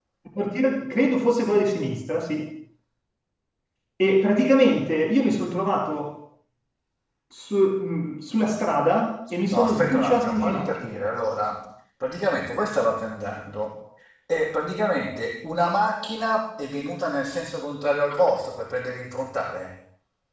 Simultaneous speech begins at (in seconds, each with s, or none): 9.5 s